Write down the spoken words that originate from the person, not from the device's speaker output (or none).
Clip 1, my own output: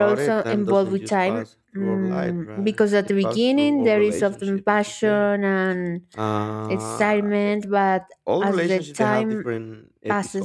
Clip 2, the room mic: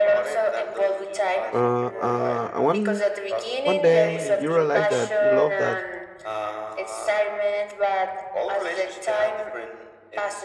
uh, uh, one one day you realize that you love that